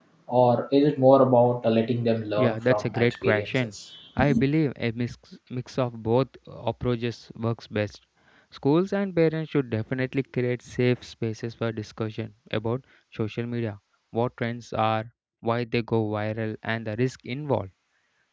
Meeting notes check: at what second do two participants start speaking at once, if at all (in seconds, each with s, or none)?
2.4 s